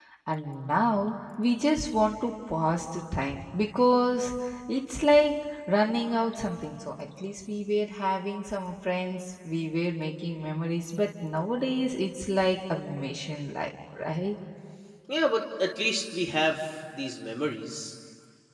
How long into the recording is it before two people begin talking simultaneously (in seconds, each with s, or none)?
none